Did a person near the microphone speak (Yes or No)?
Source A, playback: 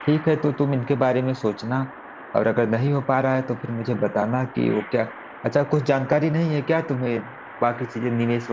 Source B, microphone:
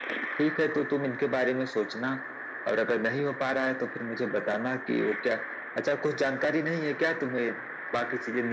No